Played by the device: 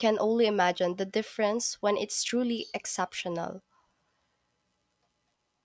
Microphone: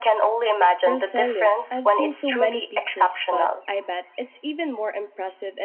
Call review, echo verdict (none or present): present